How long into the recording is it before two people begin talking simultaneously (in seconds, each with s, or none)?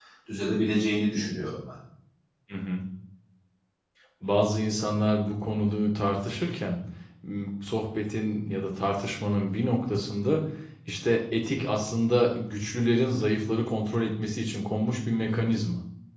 none